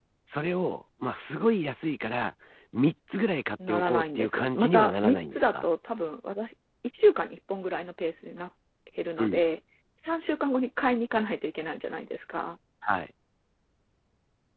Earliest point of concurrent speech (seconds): 4 s

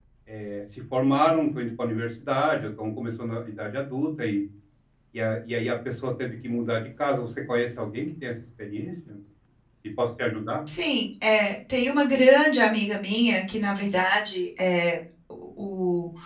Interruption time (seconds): none

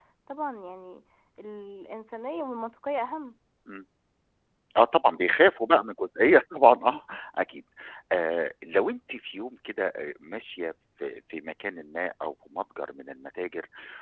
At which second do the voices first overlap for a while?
none

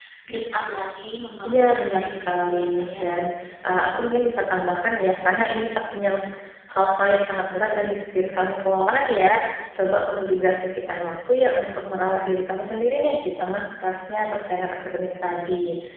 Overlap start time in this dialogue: 1 s

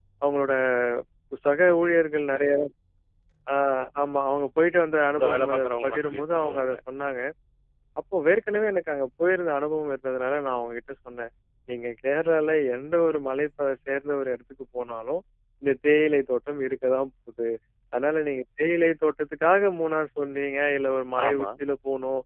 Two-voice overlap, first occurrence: 5 s

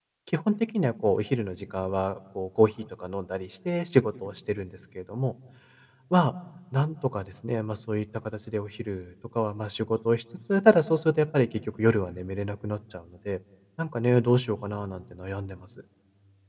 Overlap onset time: none

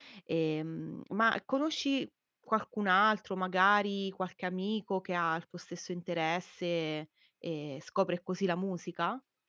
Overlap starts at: none

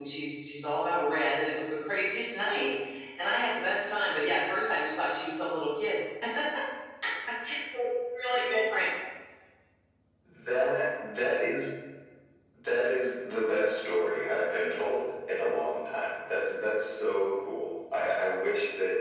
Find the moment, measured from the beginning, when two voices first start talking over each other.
none

